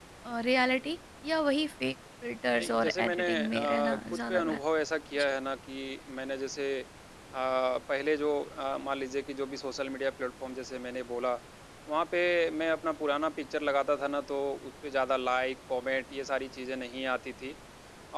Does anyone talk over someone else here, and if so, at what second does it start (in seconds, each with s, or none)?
2.5 s